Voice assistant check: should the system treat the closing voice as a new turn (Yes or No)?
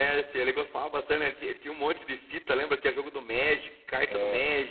Yes